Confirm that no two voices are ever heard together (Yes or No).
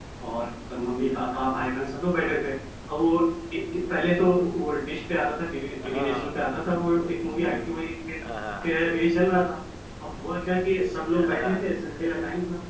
No